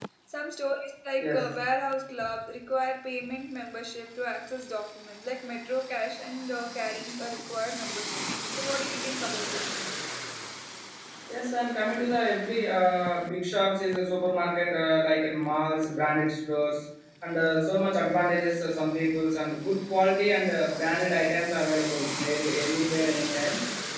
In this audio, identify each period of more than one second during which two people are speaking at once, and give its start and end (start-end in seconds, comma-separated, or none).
none